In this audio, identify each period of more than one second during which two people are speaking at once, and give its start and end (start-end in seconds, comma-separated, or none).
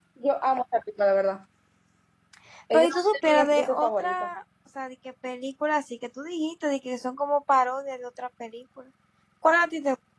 2.7-4.2